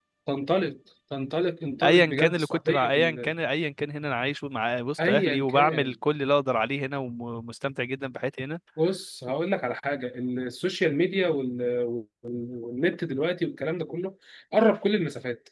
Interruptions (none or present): present